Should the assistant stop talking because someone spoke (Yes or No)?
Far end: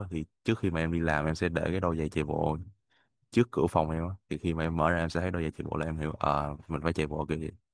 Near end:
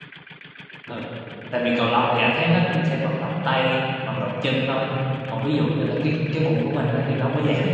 Yes